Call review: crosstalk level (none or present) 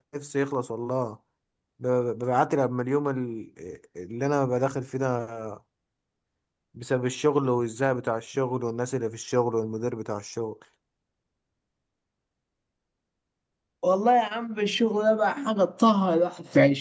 none